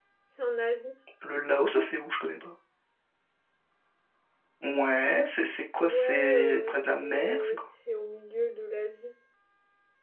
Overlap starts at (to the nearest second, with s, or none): 6 s